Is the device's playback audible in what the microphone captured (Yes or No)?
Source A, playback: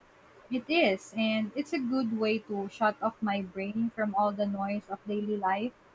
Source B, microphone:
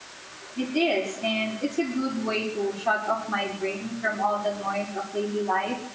Yes